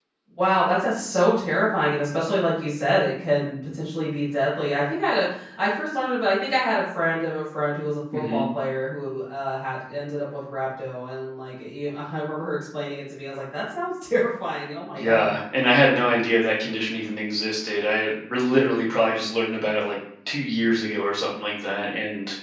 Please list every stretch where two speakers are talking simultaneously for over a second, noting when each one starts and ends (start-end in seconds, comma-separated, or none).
none